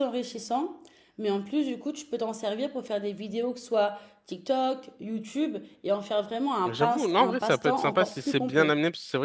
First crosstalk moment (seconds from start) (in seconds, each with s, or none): 6.6 s